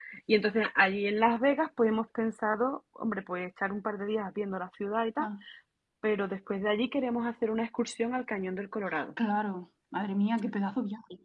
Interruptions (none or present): none